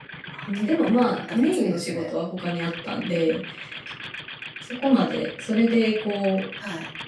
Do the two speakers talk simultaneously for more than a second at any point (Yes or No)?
Yes